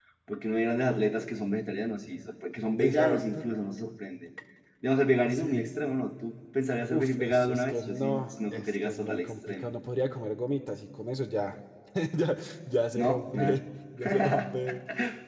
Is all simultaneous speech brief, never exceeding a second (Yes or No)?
No